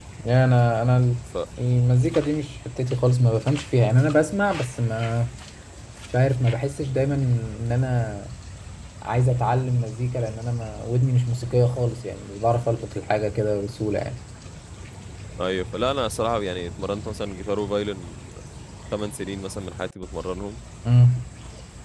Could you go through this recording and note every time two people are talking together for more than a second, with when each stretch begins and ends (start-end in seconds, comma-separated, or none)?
none